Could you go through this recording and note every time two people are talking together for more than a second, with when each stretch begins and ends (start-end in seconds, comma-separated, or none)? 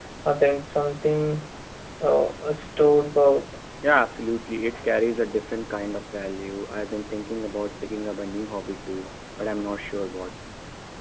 none